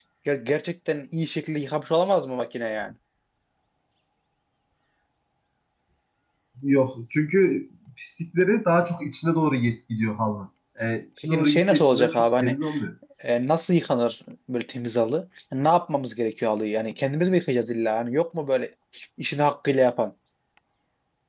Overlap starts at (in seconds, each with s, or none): 11.2 s